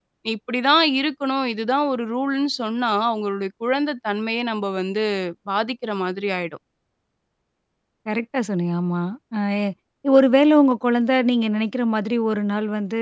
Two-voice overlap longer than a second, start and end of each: none

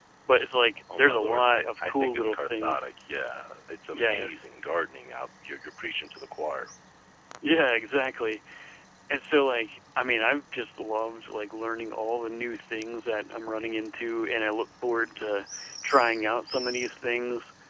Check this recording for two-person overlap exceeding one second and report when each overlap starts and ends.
1.0-2.9

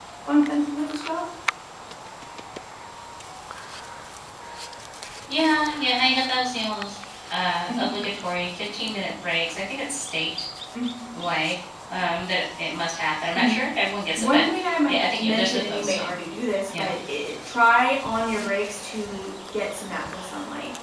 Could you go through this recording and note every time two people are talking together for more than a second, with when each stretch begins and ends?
14.9-16.1

